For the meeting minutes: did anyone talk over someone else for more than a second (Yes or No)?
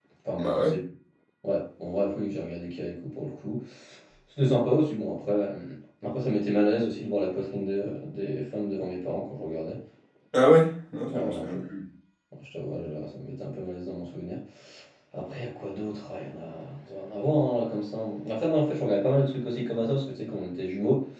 No